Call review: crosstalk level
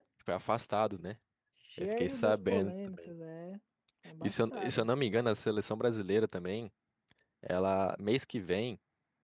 present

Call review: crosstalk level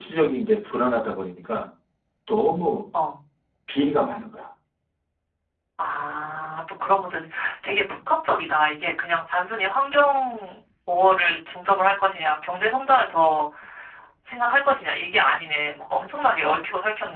none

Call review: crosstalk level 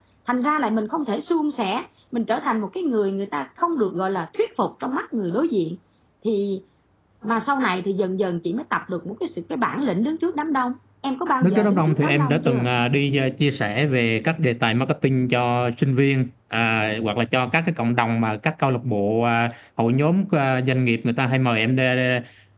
present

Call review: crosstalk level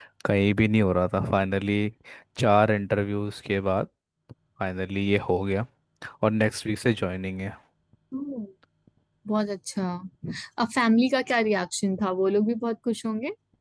none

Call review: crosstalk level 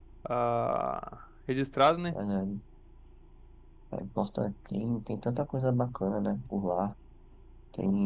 none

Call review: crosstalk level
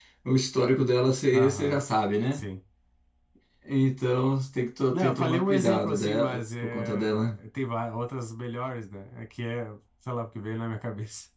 present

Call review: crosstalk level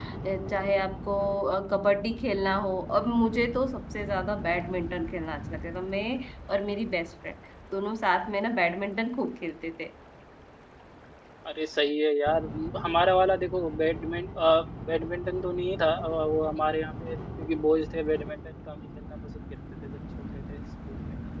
none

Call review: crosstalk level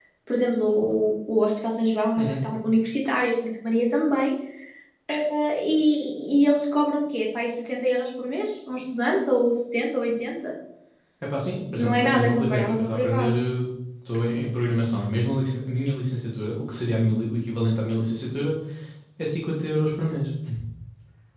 present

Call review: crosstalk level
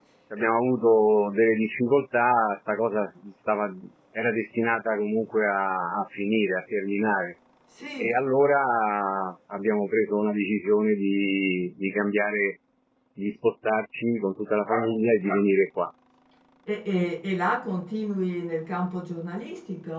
none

